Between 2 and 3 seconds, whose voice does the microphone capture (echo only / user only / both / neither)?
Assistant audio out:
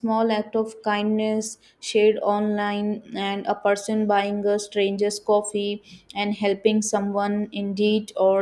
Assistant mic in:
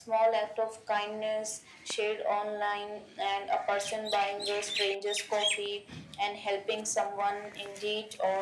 echo only